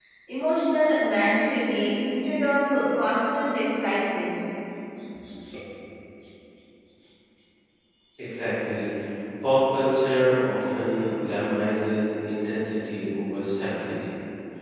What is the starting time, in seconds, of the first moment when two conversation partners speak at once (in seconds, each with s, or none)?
none